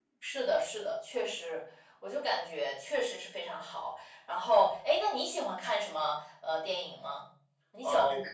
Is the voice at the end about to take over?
Yes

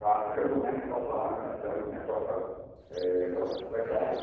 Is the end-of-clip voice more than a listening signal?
No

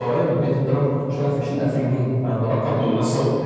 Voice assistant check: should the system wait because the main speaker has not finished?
No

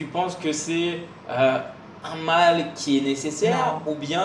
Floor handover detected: No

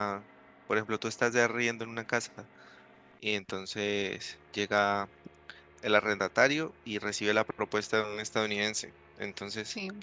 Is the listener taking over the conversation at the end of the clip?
No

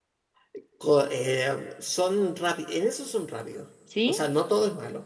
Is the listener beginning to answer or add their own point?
No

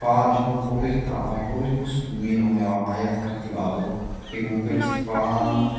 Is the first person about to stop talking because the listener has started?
Yes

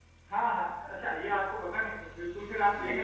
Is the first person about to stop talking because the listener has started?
No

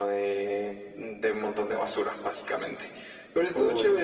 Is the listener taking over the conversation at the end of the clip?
No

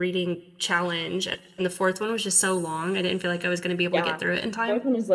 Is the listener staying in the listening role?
No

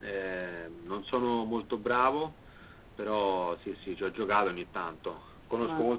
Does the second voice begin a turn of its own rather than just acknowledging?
No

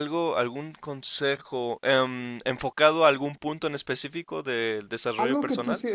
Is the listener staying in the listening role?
No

